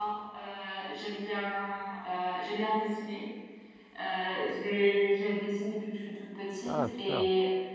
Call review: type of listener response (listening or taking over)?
listening